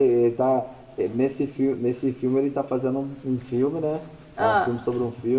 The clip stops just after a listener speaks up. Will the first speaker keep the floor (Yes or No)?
Yes